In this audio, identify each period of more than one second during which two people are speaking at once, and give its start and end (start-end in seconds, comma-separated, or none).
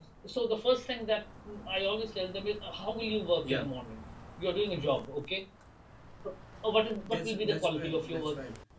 7.1-8.3